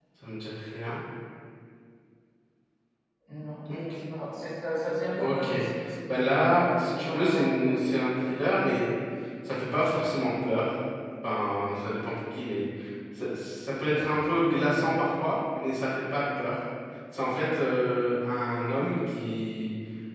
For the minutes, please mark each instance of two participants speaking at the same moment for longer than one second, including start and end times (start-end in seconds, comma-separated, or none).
6.1-8.0